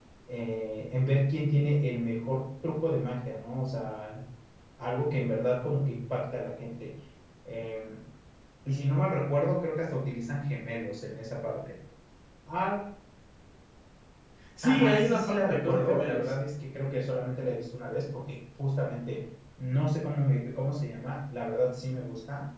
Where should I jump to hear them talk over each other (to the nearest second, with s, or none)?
15 s